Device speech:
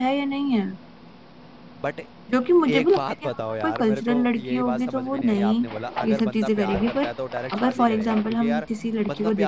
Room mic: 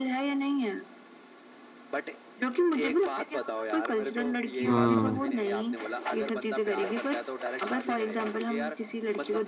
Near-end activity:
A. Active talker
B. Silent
A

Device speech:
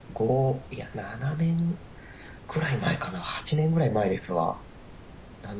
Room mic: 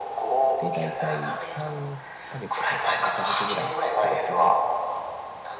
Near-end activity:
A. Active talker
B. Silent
A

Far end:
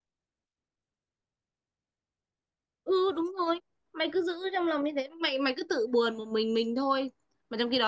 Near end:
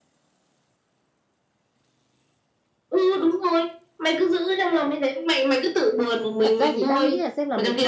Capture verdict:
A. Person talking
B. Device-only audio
A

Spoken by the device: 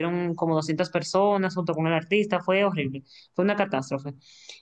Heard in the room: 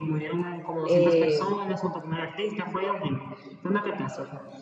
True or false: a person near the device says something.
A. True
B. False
A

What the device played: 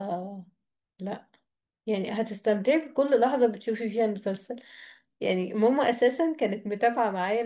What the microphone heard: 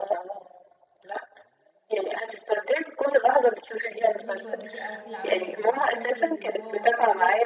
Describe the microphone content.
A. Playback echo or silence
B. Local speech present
B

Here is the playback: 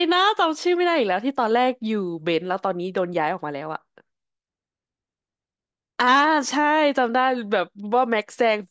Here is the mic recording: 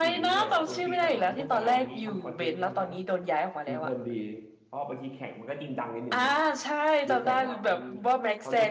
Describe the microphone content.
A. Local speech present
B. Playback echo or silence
A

